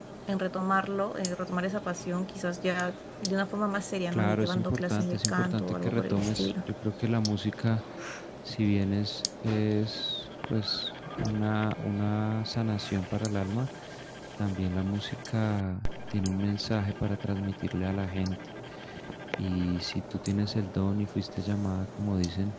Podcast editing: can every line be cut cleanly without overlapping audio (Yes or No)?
No